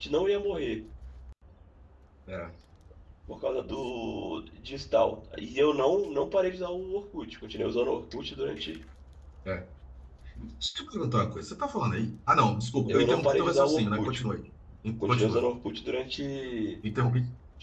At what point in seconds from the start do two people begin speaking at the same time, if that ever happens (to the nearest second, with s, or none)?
13 s